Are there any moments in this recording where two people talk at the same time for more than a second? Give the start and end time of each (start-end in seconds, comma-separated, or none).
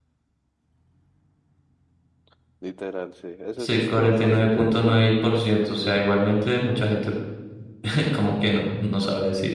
3.6-5.0